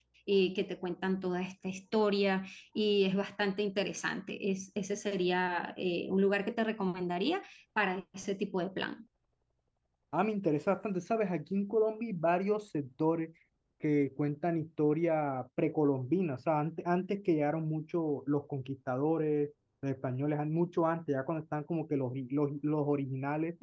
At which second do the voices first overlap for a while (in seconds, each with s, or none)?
none